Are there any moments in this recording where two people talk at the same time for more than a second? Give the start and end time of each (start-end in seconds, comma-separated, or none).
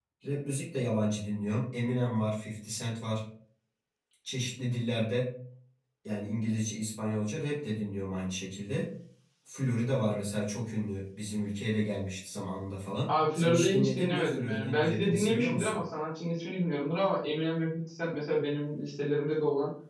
13.1-15.8